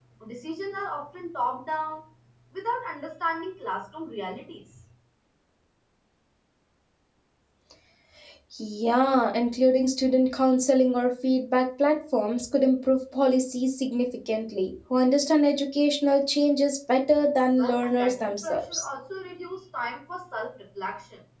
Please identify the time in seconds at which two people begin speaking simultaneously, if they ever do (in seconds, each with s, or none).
17.6 s